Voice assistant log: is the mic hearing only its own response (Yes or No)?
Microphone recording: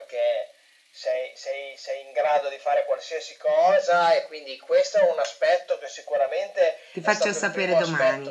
No